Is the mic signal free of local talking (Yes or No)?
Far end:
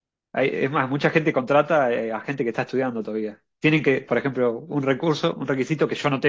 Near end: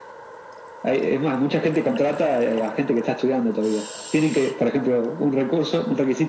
Yes